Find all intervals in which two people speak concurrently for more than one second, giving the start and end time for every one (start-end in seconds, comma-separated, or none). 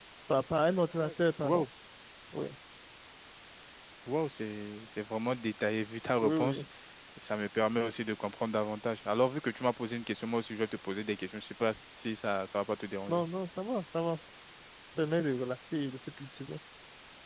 none